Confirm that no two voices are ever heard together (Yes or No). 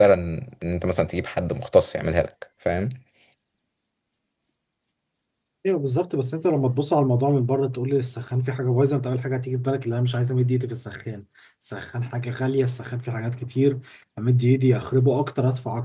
Yes